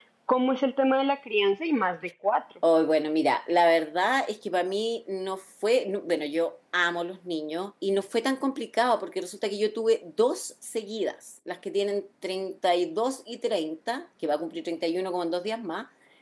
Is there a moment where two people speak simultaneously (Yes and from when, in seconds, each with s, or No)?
No